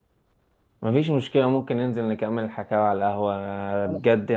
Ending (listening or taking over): listening